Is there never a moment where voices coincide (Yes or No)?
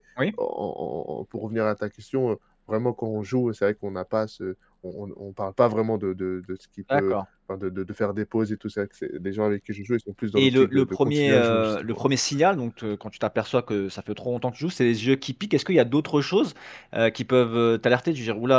No